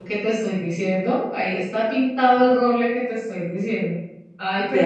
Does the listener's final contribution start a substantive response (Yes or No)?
No